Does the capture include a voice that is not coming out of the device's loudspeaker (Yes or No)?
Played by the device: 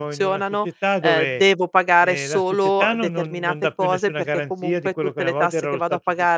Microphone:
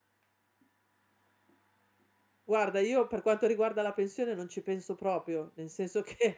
Yes